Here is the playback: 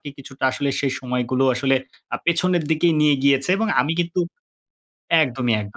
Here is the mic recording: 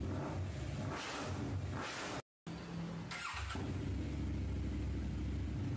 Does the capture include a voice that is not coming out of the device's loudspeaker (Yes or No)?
No